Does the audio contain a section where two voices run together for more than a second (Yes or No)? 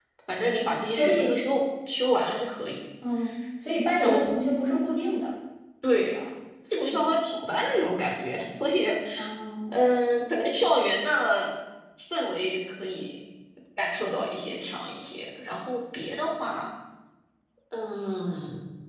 No